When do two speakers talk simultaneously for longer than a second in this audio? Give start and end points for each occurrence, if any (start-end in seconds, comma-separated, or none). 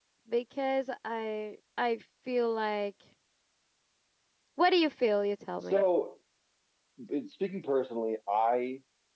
none